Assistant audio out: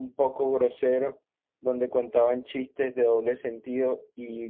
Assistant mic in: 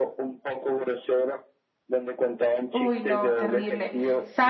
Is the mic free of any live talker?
No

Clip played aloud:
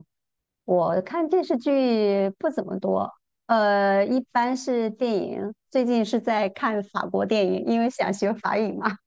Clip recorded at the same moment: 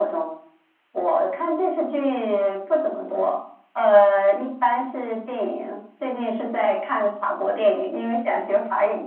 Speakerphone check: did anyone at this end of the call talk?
No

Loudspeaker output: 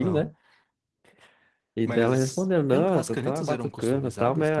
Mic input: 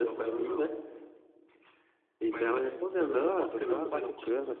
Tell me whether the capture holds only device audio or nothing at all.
No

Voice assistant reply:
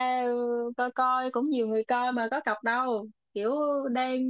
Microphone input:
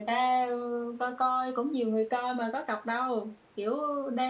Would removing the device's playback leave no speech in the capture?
Yes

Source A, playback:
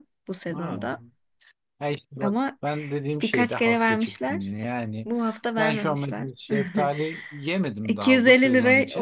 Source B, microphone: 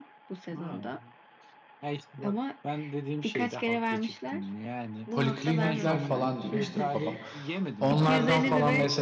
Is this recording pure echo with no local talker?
No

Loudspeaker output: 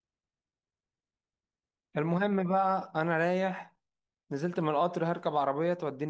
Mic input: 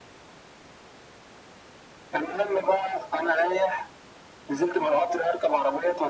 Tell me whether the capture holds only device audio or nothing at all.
Yes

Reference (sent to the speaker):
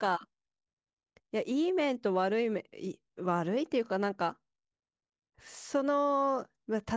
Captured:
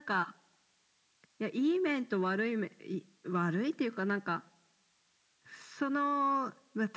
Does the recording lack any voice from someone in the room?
Yes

